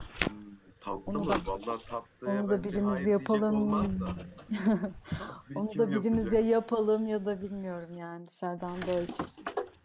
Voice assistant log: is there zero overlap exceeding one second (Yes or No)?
No